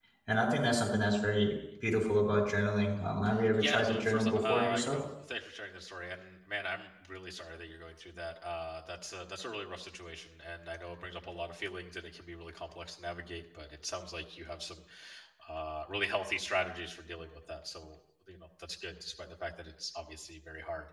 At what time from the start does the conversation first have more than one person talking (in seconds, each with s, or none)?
3.5 s